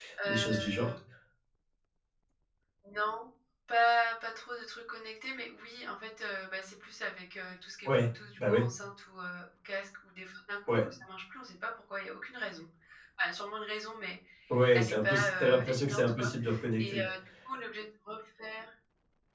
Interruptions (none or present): present